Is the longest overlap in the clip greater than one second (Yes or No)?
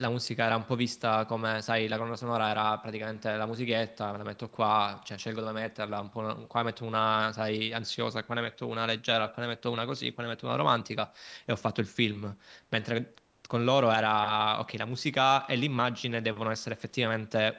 No